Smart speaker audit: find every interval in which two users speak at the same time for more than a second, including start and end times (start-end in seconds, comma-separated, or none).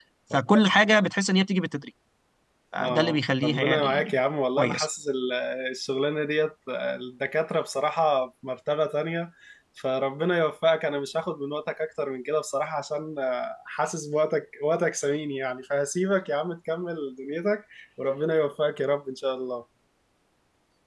2.8-4.1